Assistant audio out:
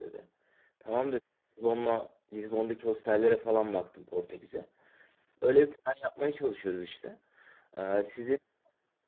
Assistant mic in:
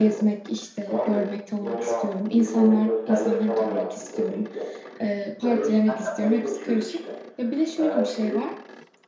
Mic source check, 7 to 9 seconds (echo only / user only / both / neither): both